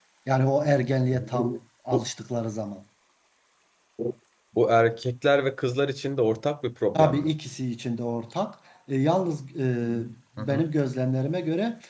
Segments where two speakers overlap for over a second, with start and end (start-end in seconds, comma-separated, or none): none